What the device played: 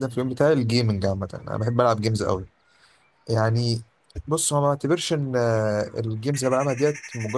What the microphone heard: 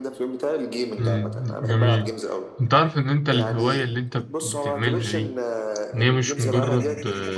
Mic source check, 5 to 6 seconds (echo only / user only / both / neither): both